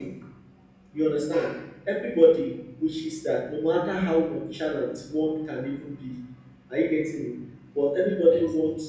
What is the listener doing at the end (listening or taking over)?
listening